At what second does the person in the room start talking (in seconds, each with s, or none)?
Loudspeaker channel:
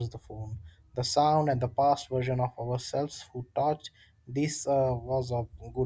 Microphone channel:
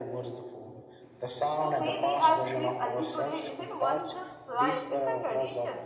1.6 s